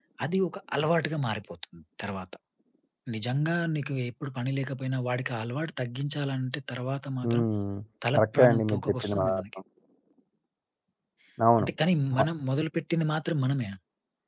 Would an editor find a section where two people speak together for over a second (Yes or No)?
Yes